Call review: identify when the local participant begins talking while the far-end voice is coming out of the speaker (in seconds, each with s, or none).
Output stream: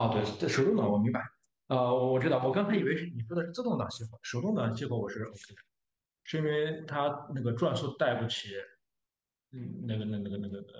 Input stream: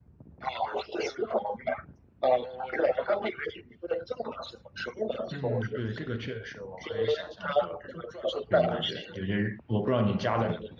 5.3 s